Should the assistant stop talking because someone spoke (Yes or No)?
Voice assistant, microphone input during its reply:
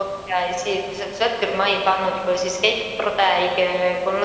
No